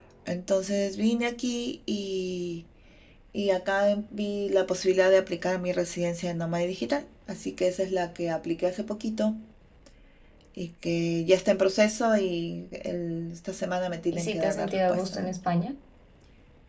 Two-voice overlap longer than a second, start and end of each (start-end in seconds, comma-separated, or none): 14.1-15.3